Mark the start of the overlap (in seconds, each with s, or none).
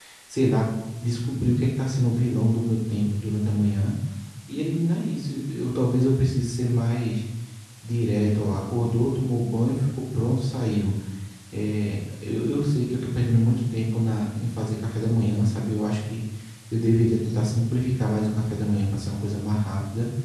none